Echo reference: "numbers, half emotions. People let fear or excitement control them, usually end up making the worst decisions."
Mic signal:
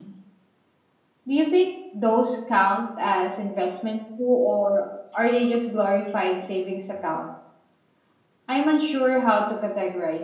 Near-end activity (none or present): present